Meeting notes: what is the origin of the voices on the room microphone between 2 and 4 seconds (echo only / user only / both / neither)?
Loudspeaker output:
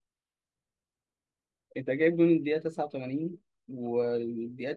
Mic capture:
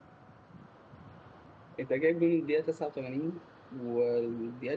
echo only